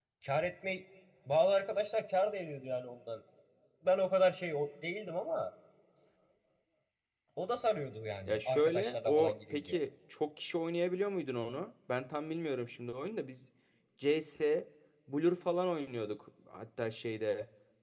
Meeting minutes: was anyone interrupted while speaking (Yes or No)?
Yes